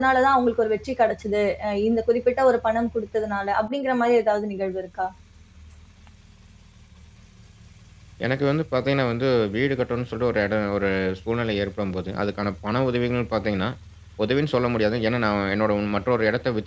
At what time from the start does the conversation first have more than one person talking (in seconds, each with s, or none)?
none